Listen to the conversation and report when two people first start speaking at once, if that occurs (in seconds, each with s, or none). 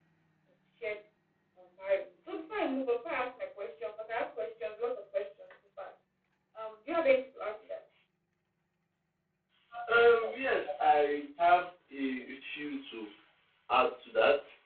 none